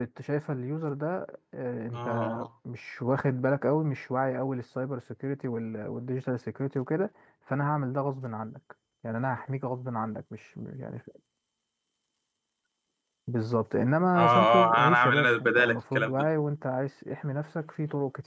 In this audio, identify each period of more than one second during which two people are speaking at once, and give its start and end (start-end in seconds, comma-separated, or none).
14.1-16.1